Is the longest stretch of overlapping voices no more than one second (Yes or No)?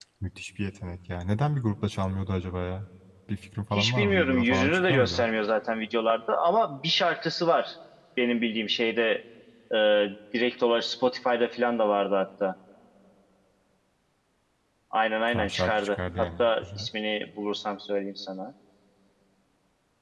No